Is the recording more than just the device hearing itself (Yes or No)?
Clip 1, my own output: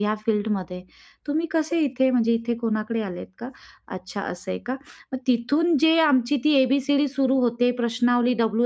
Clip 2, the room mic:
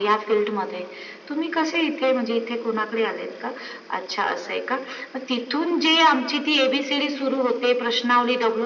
No